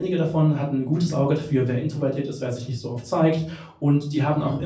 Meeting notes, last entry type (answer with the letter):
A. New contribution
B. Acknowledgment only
B